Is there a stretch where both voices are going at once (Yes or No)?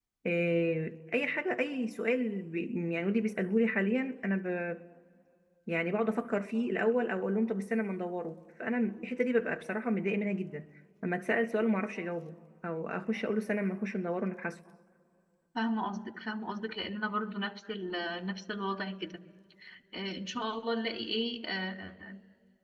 No